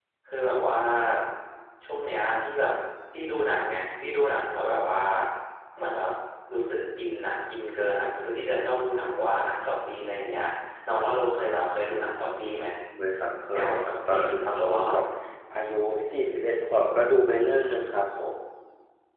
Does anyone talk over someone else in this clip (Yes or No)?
Yes